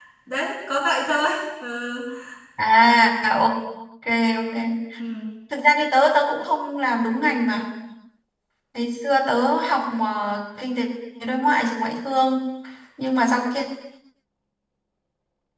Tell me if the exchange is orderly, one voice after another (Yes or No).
Yes